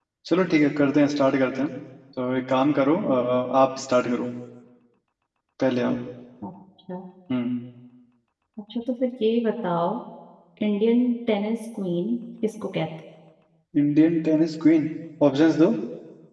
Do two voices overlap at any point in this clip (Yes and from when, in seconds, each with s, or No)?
No